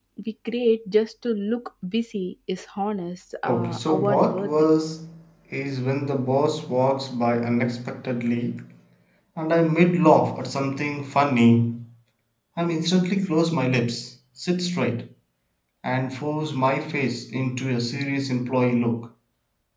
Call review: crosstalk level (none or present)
present